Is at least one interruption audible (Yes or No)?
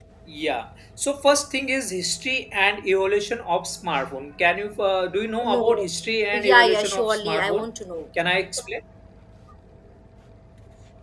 Yes